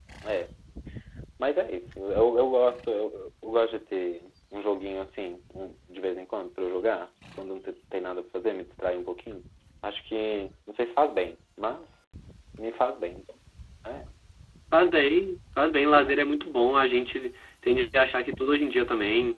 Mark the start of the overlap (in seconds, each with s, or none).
none